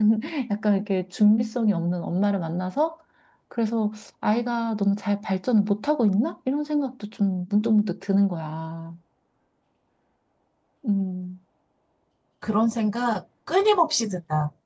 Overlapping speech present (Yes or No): No